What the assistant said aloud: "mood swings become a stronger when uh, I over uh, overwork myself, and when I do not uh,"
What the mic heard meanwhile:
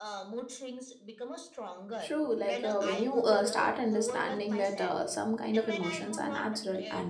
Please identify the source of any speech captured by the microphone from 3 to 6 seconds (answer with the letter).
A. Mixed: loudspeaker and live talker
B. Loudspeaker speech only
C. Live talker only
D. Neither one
A